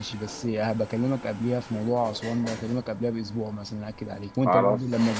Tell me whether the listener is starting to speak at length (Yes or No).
No